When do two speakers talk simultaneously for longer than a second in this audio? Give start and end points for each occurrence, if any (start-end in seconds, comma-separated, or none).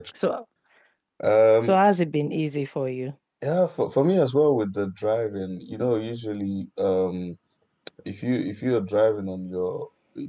none